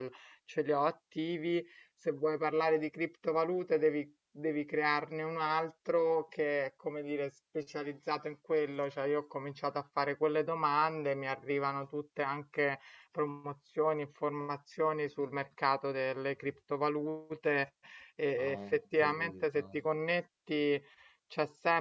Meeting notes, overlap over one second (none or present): present